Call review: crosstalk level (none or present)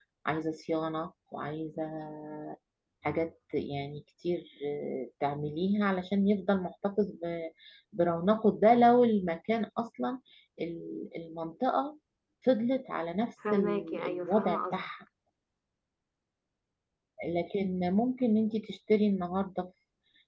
present